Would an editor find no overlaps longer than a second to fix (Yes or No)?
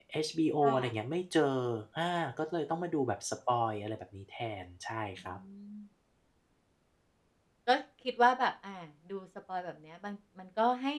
Yes